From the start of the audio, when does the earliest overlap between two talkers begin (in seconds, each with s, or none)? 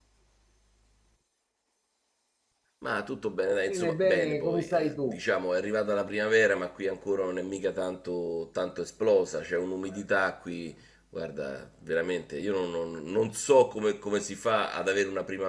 3.6 s